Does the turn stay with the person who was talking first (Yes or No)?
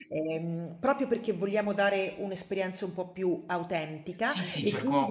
No